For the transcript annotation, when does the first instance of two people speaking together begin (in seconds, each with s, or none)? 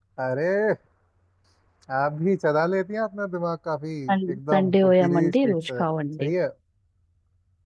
4.1 s